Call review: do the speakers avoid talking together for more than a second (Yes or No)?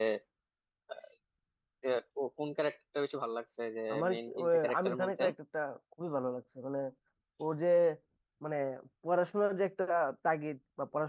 No